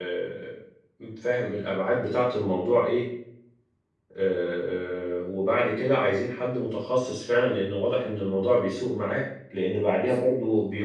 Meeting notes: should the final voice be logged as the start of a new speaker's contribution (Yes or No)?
No